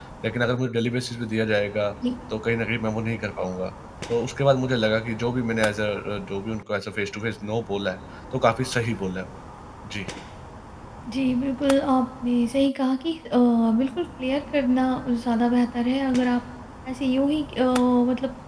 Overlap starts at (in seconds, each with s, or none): none